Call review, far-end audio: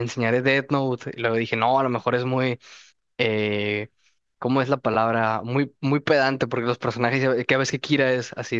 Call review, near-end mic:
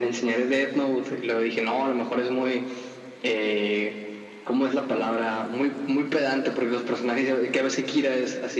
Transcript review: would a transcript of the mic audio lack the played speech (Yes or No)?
No